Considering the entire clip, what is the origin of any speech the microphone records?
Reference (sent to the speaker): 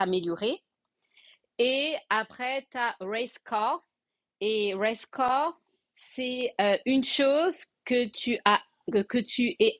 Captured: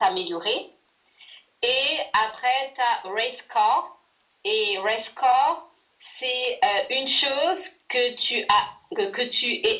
echo only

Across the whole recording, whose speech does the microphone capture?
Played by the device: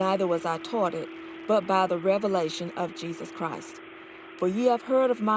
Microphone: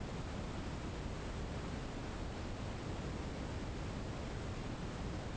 neither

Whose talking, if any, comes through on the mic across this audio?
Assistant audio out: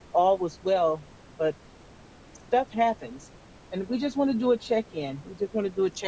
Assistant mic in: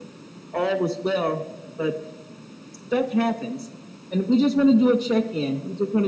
echo only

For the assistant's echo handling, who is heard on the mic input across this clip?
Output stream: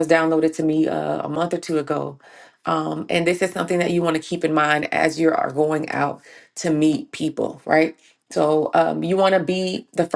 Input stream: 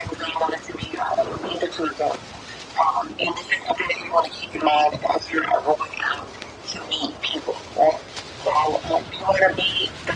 echo only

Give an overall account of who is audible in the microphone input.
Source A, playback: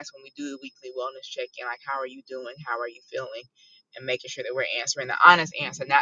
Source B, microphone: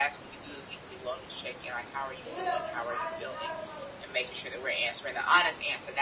both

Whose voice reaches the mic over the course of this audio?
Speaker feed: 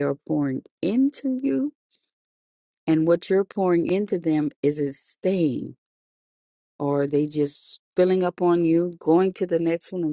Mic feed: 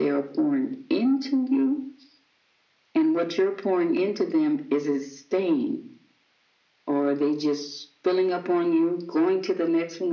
echo only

